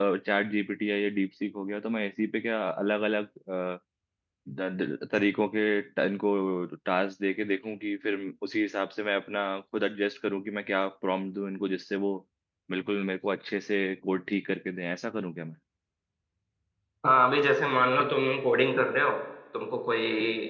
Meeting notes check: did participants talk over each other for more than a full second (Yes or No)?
No